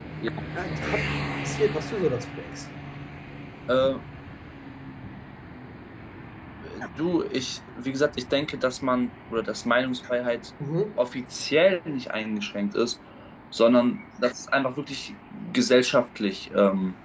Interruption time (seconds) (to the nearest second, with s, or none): none